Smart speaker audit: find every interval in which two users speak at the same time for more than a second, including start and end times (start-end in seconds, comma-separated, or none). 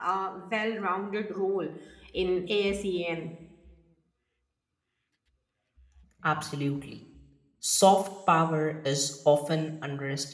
none